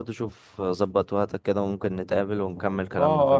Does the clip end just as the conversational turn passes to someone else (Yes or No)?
Yes